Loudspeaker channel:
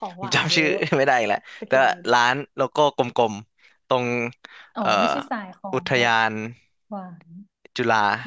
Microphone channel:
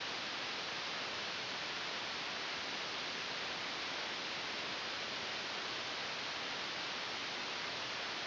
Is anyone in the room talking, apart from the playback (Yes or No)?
No